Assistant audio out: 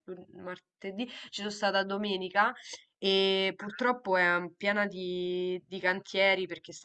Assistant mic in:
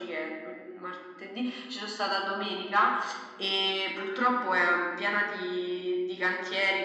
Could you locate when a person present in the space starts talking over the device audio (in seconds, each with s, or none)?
none